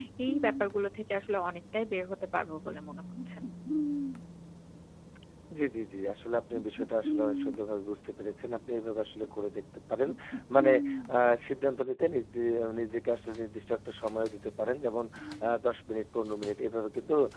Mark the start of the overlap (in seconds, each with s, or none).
none